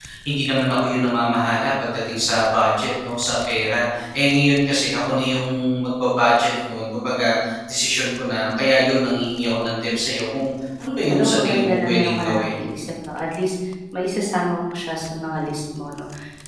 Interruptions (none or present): present